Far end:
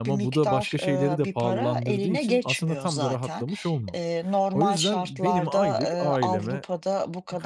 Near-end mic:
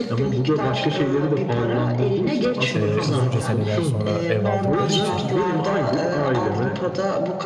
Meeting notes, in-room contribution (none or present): present